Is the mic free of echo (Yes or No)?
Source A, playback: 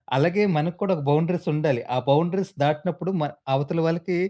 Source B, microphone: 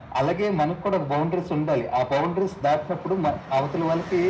No